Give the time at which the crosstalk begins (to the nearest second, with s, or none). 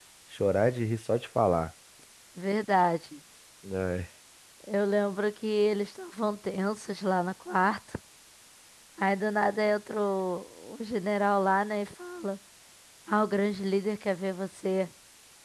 none